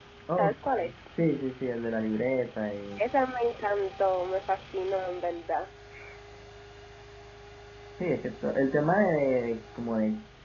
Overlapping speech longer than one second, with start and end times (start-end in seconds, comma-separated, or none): none